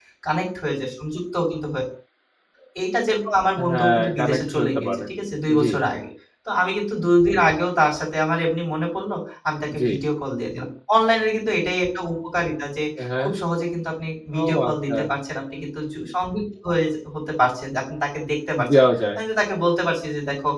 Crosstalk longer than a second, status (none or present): present